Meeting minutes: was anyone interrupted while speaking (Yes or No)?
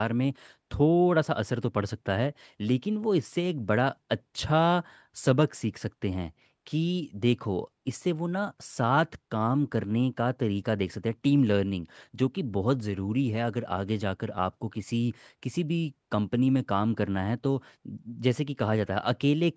No